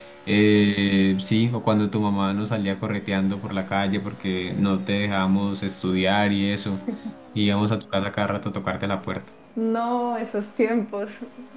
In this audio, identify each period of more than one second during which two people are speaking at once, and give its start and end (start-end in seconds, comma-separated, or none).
none